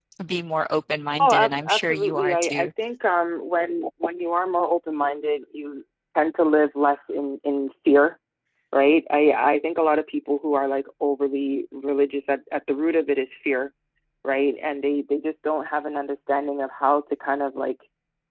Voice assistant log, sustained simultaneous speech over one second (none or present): present